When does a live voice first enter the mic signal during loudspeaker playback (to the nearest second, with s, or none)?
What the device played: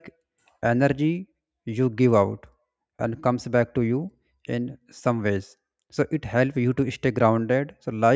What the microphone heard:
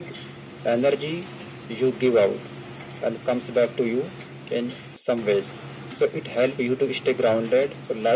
none